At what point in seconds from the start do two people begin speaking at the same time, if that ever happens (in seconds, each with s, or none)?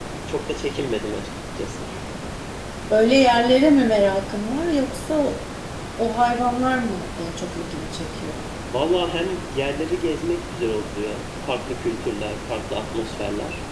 none